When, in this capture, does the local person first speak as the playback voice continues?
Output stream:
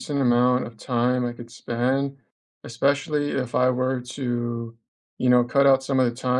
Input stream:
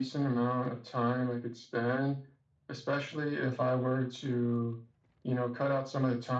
none

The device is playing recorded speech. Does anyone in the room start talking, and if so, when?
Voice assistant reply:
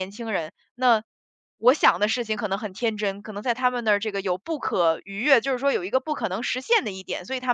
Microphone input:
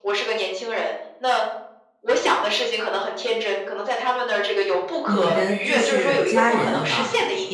5 s

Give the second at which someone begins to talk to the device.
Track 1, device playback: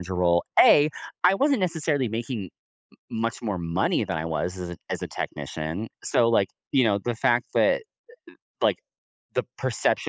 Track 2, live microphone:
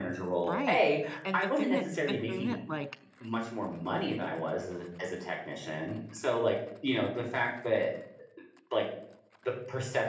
0 s

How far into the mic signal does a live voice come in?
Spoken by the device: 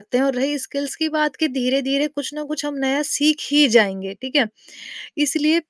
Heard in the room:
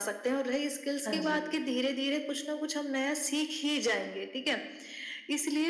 1 s

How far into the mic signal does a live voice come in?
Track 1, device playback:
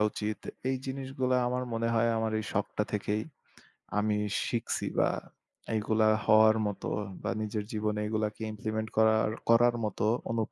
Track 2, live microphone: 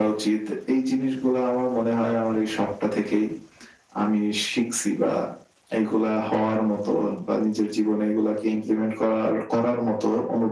none

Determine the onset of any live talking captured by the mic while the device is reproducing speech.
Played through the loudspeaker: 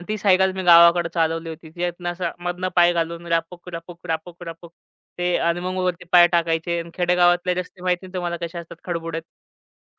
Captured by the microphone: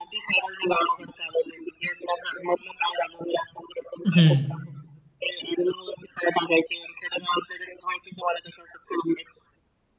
4 s

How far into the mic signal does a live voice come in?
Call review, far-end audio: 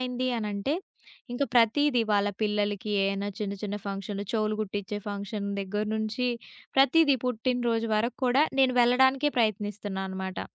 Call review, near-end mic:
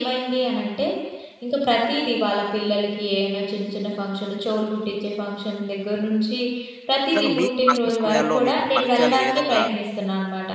7 s

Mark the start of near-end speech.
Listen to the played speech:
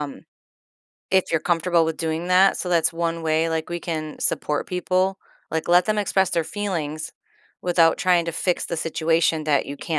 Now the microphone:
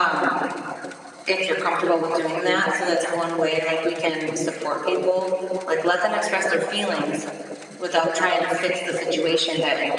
none

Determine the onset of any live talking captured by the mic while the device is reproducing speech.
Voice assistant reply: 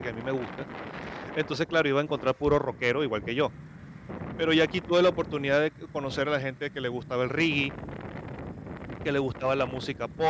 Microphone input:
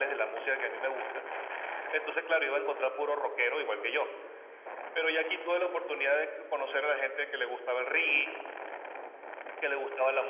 none

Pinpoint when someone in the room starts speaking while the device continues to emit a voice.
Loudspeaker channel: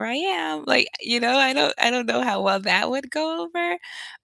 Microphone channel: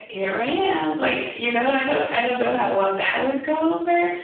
none

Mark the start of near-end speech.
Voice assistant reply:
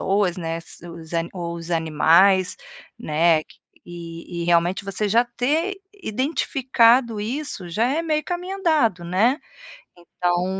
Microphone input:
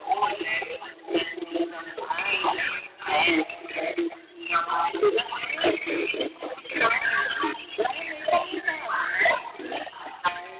none

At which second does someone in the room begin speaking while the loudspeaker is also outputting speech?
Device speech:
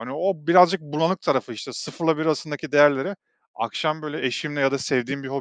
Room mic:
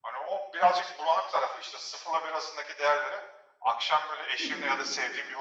4 s

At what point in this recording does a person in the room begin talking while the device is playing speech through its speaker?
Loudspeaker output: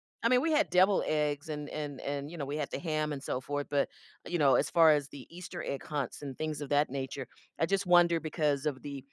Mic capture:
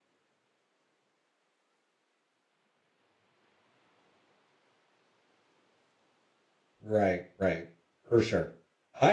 7 s

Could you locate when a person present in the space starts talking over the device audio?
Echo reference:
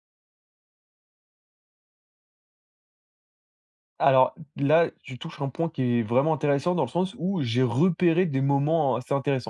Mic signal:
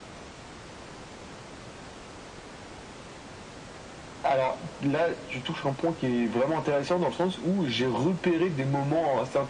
none

